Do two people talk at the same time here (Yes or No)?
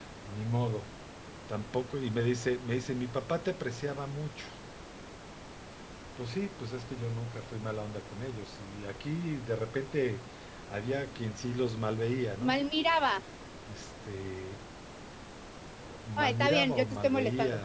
Yes